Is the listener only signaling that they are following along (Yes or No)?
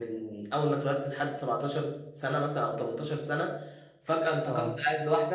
Yes